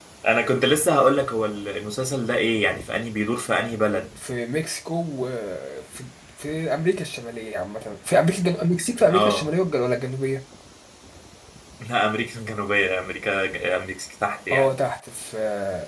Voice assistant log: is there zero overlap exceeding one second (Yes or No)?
Yes